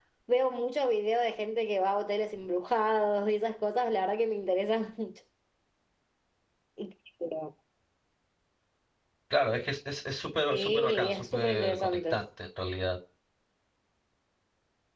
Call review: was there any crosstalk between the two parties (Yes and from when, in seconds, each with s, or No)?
Yes, from 10.5 s